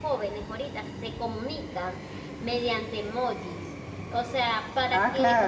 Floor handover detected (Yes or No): Yes